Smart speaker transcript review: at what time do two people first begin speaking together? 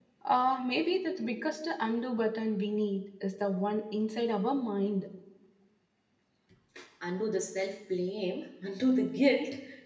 none

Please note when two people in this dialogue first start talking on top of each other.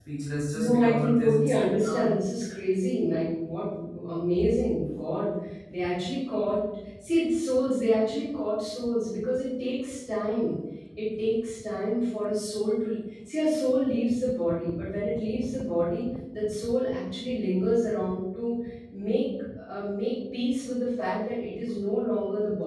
0.5 s

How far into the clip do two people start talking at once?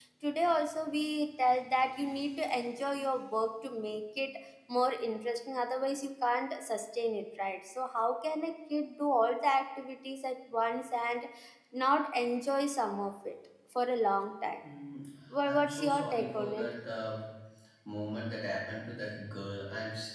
15.4 s

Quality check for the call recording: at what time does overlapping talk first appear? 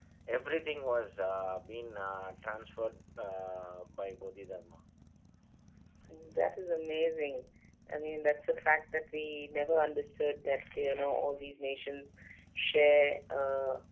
none

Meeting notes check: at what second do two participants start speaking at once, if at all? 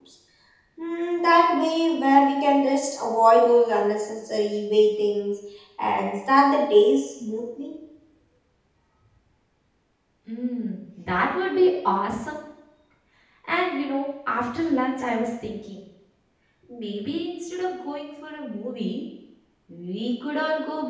none

